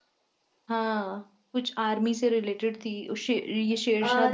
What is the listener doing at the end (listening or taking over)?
taking over